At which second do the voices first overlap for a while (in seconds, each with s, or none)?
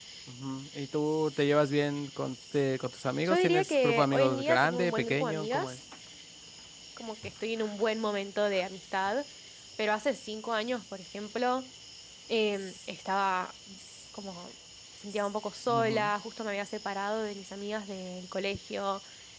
3.2 s